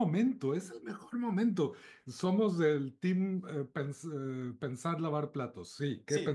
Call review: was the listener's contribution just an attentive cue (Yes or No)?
No